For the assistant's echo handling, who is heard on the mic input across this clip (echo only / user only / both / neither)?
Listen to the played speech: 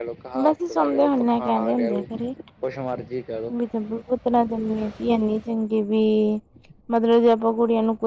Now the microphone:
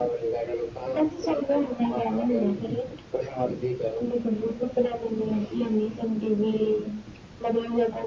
echo only